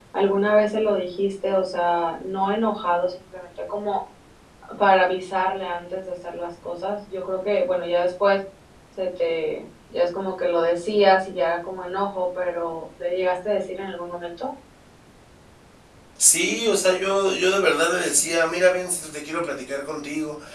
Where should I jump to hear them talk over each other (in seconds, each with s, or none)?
none